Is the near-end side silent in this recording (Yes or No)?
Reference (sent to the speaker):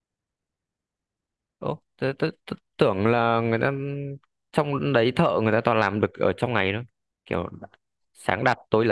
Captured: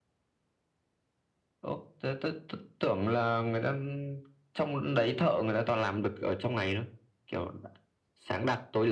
Yes